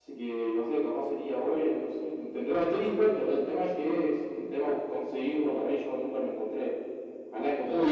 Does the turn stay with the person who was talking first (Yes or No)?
No